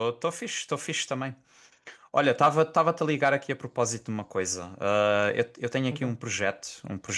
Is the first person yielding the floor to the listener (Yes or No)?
No